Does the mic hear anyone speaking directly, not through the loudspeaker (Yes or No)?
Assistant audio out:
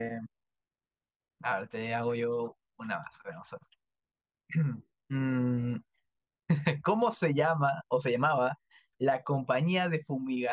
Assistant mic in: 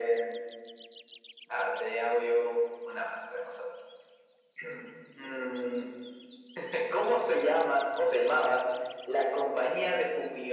No